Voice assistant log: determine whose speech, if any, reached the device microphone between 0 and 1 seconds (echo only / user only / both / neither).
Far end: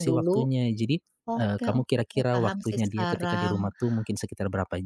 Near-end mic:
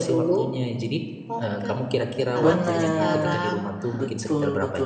echo only